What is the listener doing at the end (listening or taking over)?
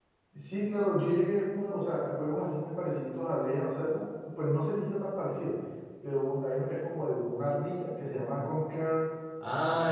taking over